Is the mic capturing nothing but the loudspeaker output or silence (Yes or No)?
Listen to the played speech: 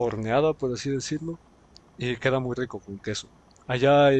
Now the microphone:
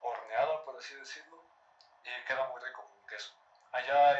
Yes